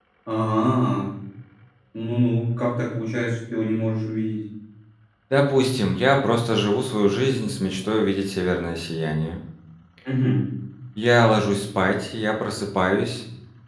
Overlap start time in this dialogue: none

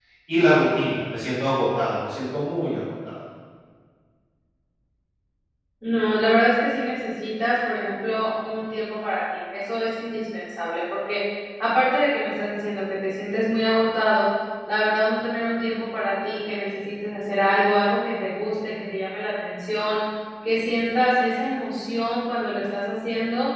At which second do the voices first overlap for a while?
none

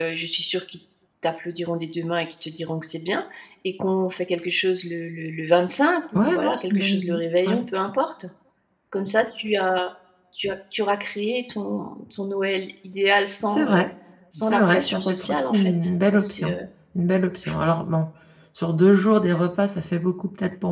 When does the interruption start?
6.2 s

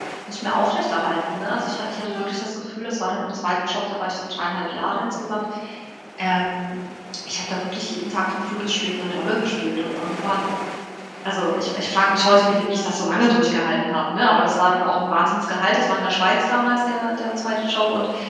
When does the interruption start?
none

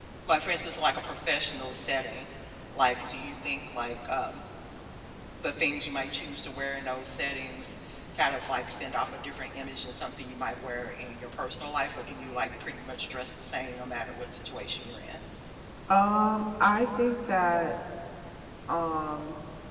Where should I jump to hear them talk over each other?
none

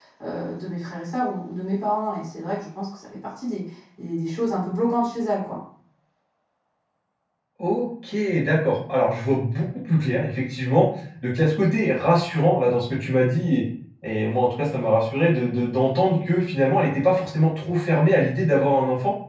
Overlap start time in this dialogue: none

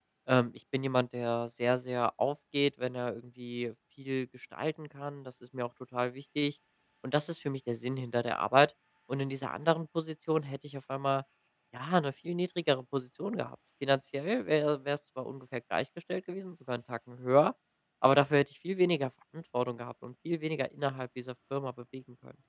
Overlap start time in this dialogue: none

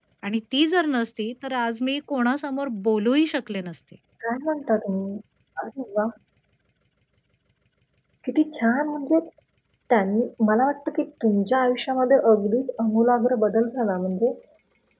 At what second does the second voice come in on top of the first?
none

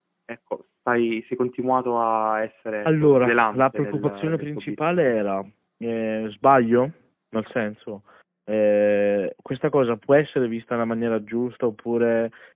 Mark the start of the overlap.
2.9 s

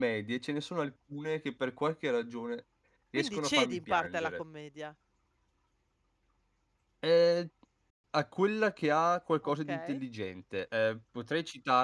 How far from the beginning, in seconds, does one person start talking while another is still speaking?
3.2 s

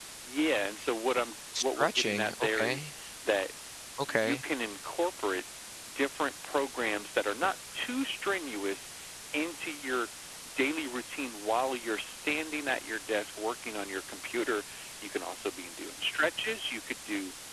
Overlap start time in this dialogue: 1.6 s

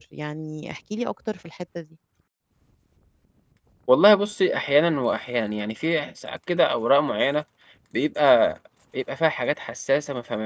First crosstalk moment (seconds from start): none

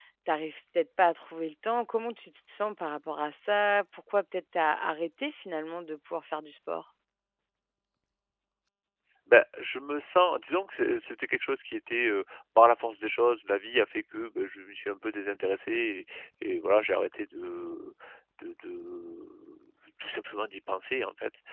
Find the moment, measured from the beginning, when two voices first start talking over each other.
none

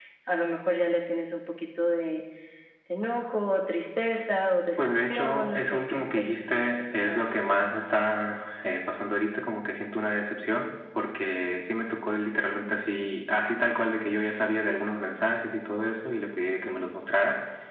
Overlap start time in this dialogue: 4.8 s

